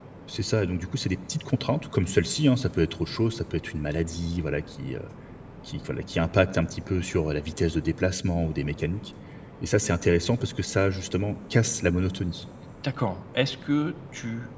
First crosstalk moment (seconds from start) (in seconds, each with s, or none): none